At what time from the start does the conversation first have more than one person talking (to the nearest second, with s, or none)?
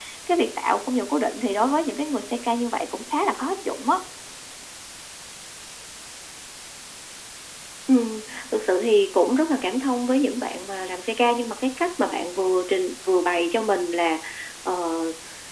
none